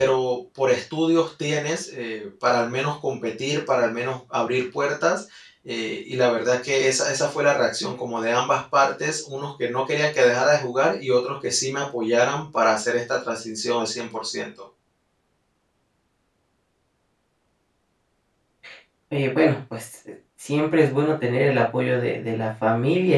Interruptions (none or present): none